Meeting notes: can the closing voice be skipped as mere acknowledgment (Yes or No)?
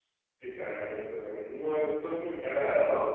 Yes